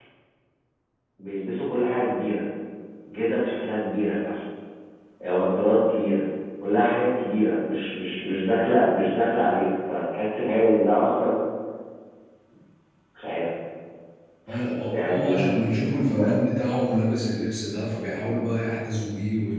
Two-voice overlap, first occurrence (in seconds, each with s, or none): 14.9 s